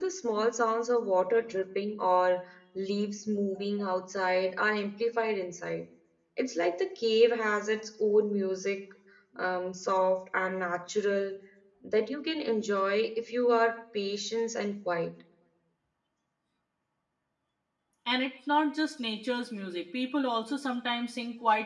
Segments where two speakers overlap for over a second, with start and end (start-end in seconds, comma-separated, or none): none